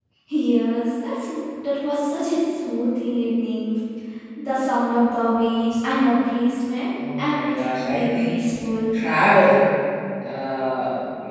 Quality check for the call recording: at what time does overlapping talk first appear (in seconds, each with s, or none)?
7.0 s